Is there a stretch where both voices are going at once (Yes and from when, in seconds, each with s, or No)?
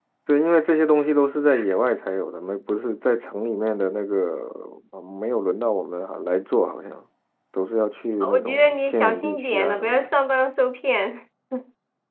Yes, from 8.3 s